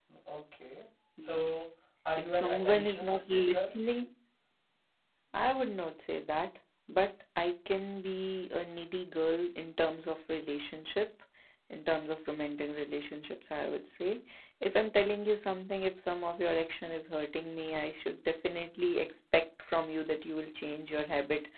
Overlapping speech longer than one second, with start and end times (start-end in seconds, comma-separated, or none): 2.3-3.6